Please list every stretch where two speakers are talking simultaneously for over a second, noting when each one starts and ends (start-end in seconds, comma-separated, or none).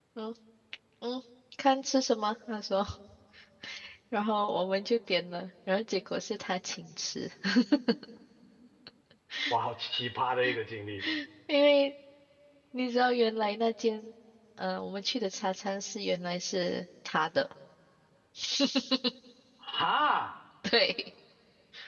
none